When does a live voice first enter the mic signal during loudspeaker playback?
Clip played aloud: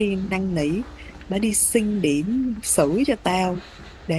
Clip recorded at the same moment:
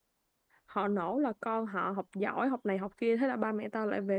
1 s

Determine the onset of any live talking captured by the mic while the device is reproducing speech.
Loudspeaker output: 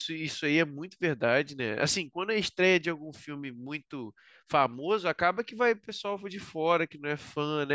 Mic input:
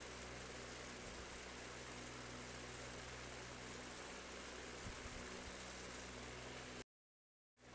none

